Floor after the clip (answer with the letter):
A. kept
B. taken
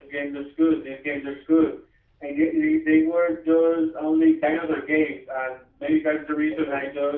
A